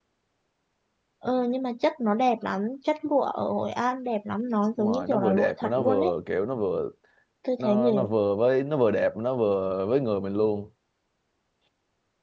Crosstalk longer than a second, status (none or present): present